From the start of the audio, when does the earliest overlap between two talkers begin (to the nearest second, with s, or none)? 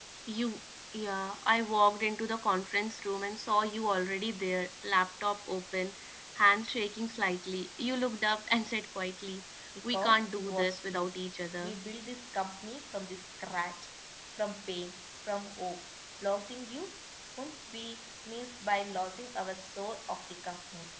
10 s